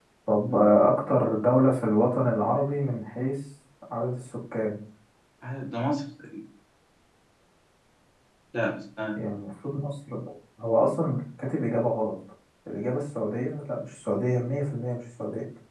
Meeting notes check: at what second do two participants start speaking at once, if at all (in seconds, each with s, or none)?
none